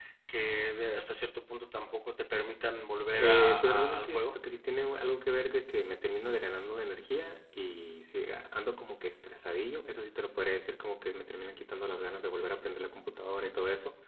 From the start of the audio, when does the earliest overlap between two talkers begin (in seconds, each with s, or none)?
3.2 s